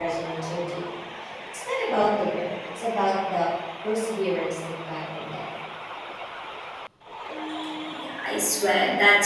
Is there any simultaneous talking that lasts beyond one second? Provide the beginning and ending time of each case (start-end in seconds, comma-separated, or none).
none